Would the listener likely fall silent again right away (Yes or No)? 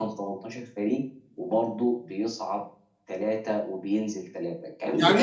No